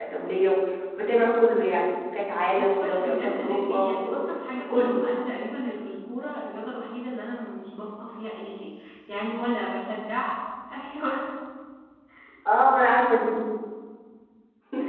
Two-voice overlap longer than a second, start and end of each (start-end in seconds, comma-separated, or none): 2.6-4.2